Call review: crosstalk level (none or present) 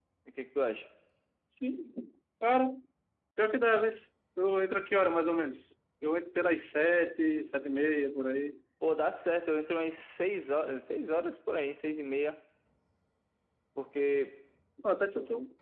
none